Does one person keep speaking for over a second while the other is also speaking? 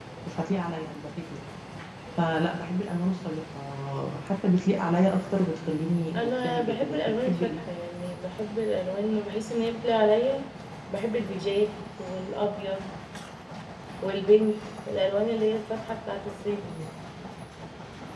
Yes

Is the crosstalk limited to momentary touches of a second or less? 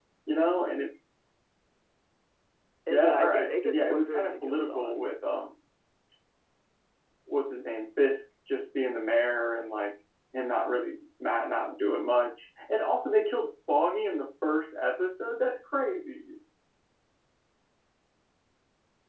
No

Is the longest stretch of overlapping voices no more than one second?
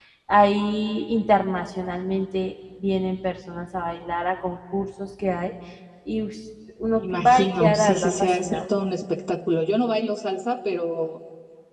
No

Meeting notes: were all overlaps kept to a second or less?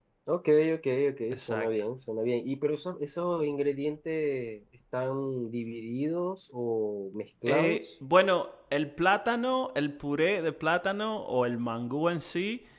Yes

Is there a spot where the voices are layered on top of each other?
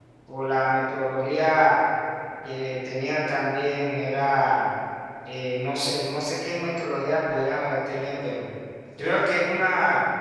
No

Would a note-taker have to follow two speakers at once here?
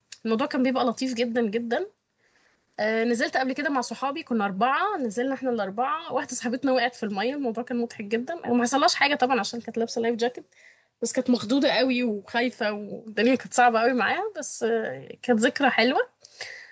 No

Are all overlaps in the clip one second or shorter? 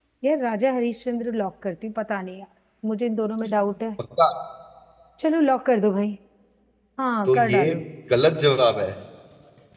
Yes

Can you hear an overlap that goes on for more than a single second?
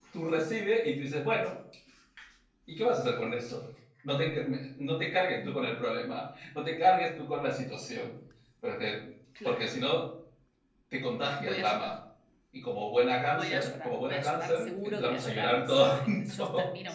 Yes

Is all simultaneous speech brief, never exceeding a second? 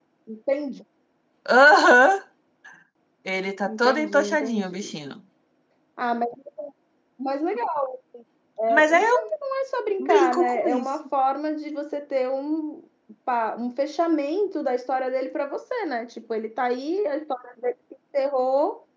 No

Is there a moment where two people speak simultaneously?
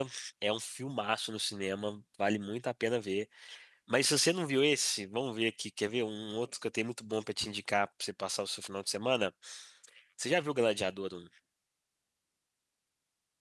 No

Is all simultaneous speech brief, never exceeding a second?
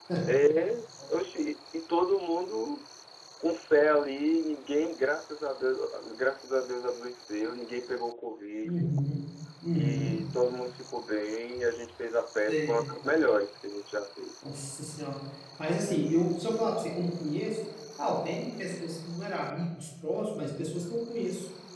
Yes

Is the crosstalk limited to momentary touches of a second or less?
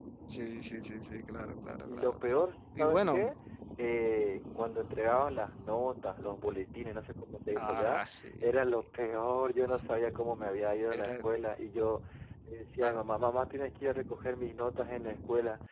Yes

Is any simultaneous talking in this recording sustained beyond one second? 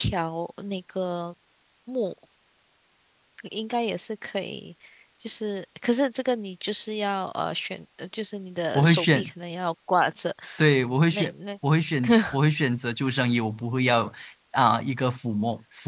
No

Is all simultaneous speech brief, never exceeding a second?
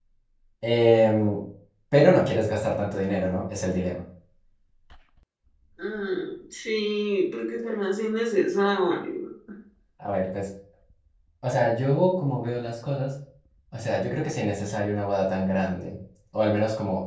Yes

